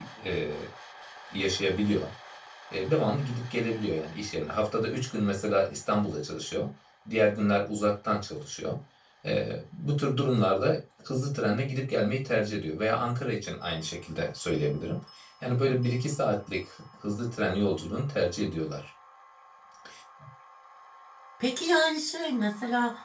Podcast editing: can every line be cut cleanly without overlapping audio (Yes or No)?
Yes